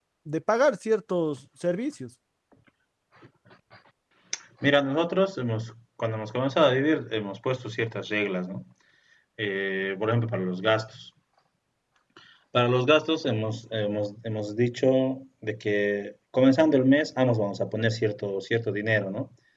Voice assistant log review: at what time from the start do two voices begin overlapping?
none

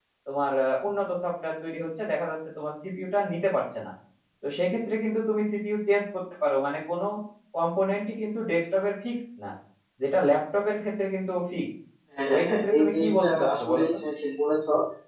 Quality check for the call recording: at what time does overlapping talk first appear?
12 s

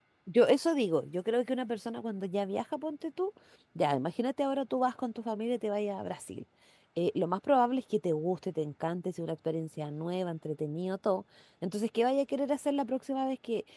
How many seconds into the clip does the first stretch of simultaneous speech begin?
none

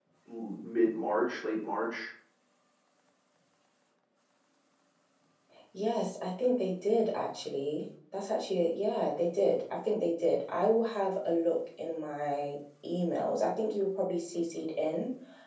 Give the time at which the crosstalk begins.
none

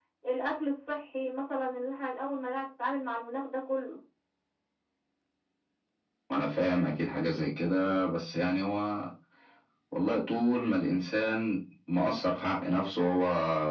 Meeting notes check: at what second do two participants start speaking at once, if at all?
none

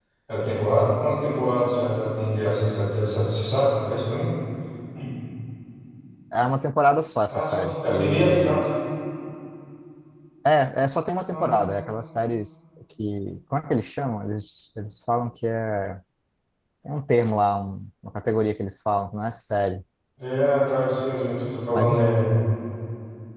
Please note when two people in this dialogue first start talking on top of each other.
7 s

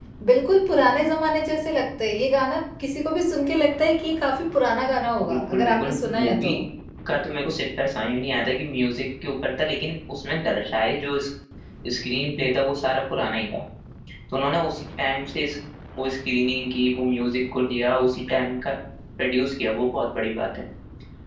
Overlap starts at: 5 s

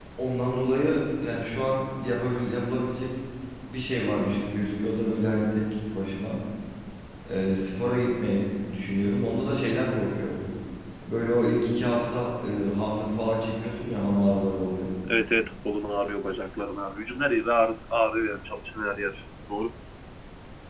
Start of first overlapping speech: none

